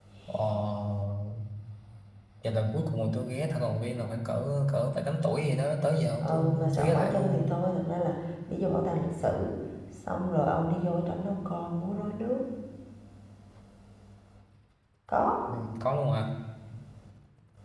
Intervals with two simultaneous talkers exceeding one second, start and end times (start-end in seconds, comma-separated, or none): 6.2-7.5